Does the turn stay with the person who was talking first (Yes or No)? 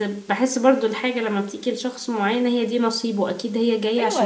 No